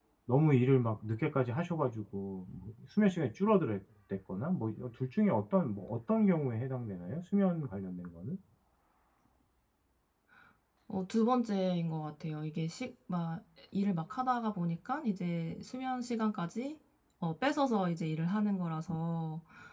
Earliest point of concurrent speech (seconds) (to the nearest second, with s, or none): none